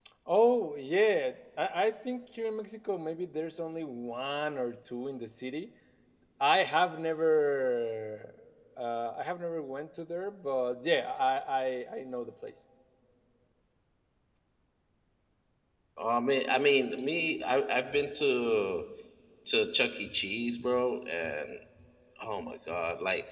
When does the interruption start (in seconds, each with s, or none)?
none